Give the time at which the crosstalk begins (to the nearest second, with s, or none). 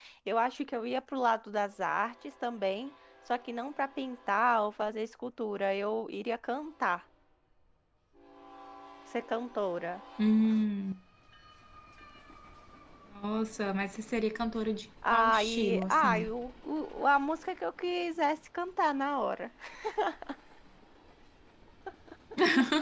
15 s